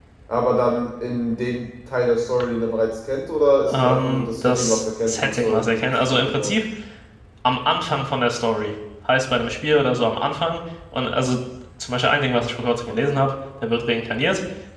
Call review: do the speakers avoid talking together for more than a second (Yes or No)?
No